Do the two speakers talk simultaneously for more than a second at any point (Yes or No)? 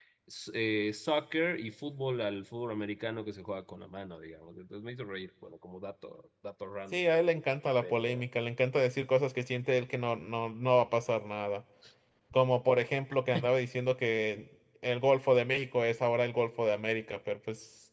No